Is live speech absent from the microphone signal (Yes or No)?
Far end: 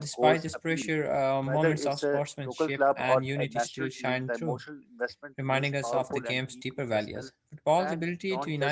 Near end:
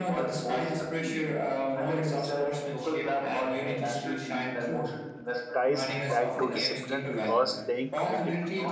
No